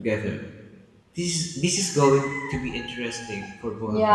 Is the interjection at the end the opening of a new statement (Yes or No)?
Yes